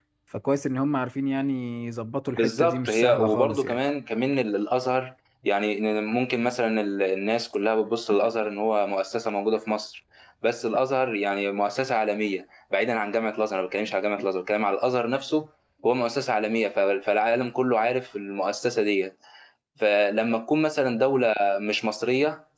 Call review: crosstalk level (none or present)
present